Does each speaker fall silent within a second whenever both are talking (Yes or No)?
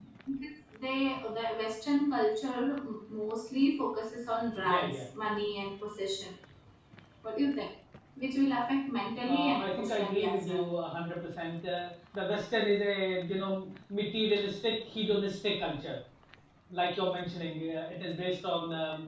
No